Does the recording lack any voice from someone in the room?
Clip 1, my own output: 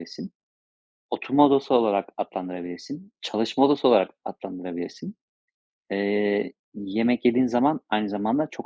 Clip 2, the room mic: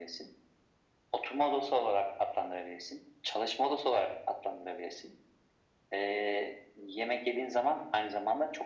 Yes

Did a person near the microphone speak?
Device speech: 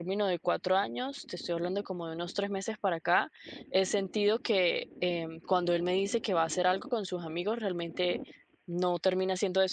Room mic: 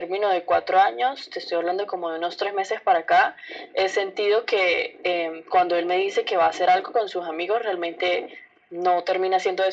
No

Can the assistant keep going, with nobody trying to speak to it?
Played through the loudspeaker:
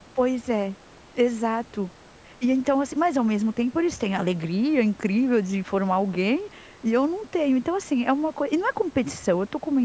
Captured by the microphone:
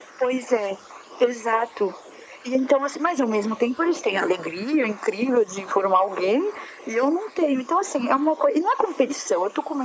Yes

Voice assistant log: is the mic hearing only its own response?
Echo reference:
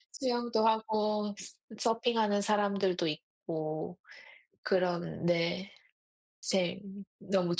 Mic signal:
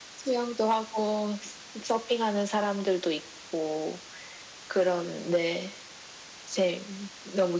Yes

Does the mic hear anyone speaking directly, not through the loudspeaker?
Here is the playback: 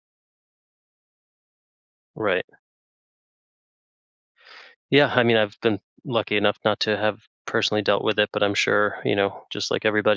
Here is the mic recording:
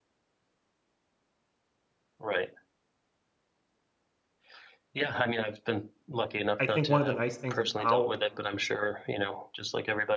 Yes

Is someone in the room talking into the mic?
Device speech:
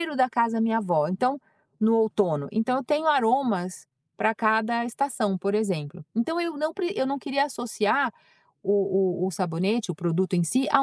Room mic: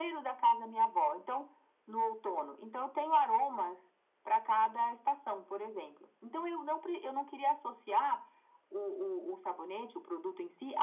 No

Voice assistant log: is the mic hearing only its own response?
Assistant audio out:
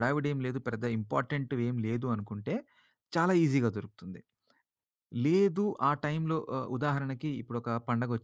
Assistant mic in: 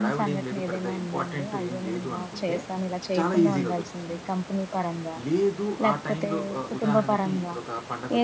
No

